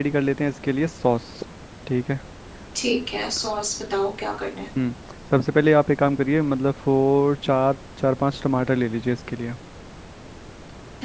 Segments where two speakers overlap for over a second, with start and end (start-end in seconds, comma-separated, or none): none